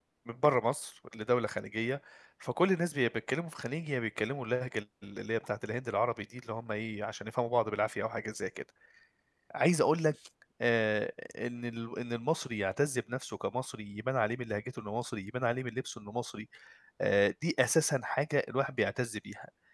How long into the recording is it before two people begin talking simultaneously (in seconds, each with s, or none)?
none